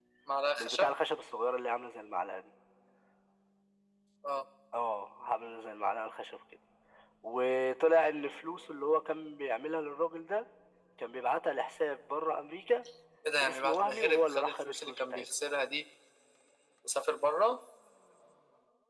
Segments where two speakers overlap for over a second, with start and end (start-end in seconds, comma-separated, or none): 13.4-15.3